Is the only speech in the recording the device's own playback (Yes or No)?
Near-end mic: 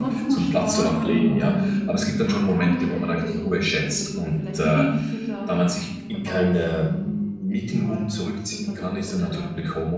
No